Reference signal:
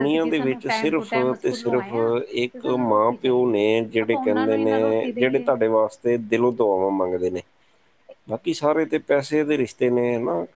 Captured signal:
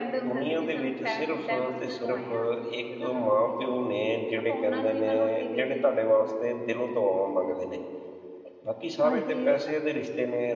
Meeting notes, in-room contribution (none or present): present